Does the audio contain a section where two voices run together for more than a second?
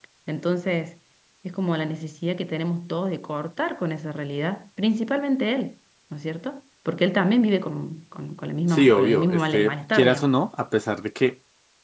Yes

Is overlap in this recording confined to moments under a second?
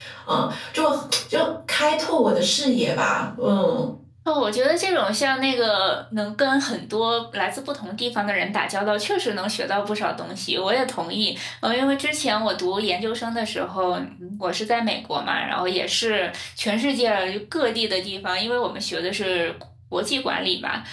Yes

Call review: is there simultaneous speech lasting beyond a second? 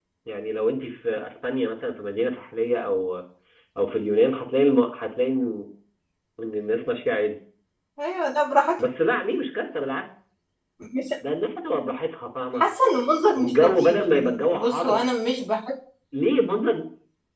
Yes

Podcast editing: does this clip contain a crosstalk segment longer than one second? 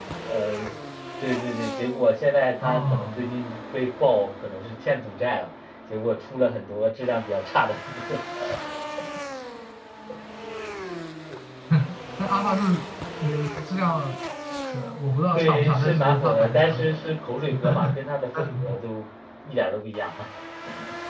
Yes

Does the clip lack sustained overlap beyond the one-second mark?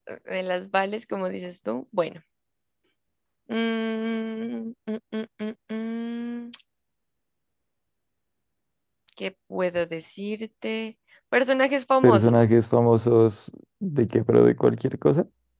Yes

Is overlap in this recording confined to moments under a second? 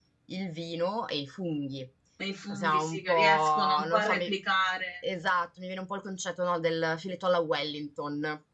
No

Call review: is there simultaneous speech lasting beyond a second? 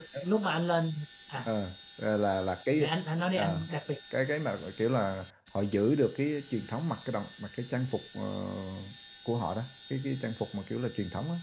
No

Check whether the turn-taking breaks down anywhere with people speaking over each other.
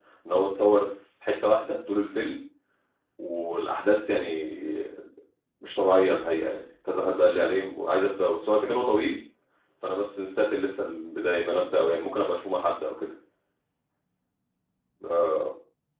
No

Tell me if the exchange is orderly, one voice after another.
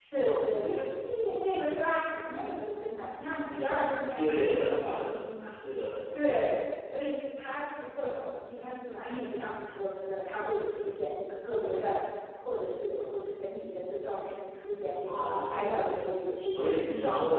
No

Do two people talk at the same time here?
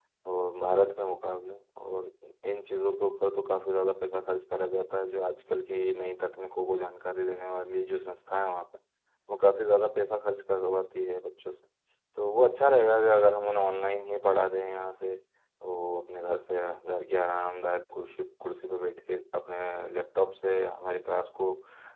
No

